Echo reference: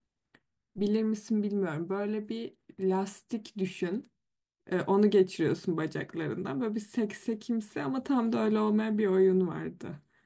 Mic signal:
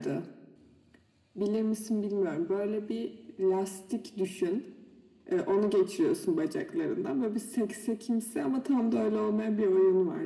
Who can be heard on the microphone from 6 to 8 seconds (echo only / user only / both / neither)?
echo only